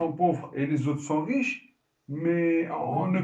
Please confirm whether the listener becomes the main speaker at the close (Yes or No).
No